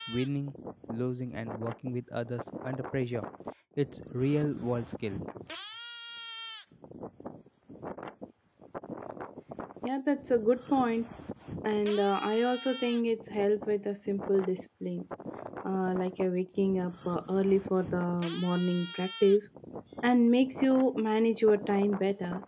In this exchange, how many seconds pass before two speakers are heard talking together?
none

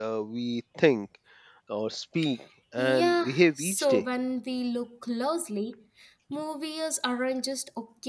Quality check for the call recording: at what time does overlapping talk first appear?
2.8 s

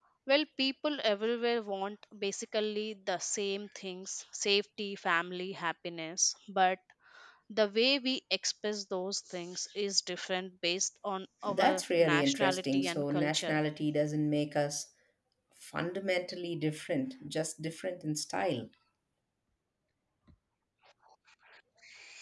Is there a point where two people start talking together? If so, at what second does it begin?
11.4 s

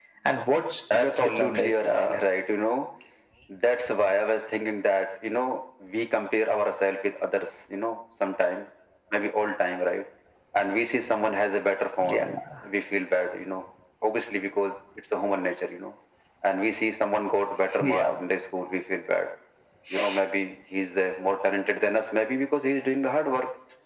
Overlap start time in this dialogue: 0.9 s

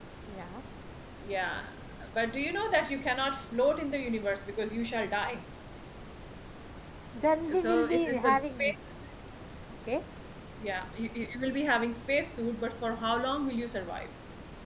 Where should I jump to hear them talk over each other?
7.5 s

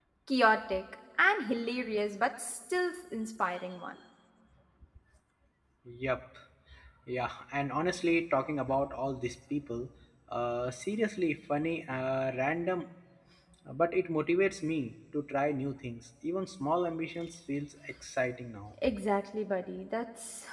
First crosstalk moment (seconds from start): none

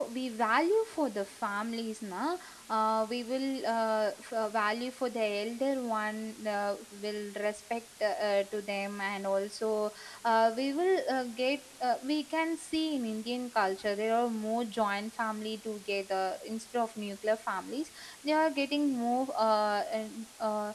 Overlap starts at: none

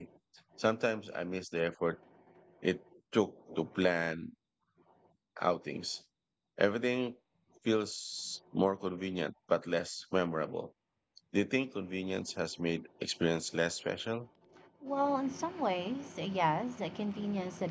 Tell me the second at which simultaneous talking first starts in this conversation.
none

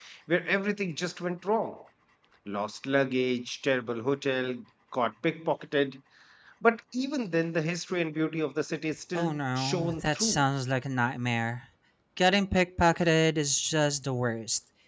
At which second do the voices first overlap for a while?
9.2 s

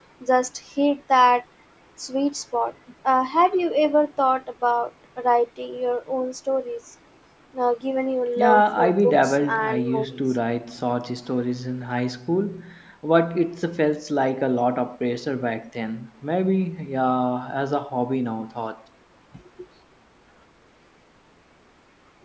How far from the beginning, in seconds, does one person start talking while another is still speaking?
8.4 s

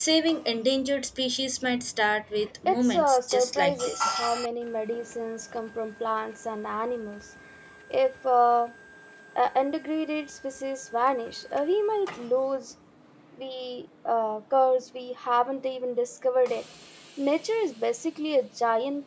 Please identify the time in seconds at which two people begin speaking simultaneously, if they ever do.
2.7 s

